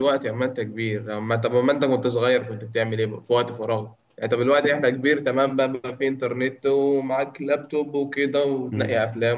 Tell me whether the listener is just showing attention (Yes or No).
Yes